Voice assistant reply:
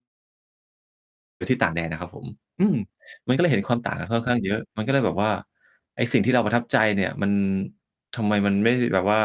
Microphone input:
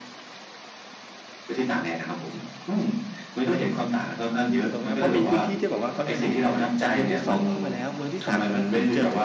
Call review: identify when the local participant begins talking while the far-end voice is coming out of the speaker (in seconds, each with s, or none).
4.6 s